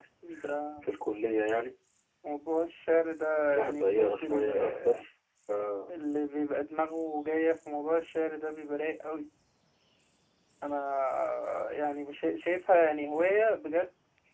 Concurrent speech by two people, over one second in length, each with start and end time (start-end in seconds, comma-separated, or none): 3.5-5.0